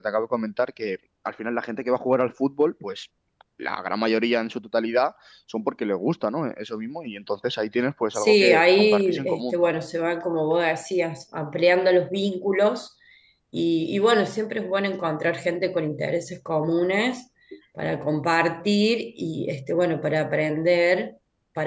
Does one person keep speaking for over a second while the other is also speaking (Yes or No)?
Yes